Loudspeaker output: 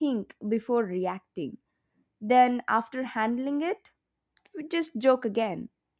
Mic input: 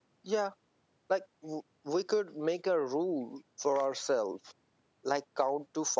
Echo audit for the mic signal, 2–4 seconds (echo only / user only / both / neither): user only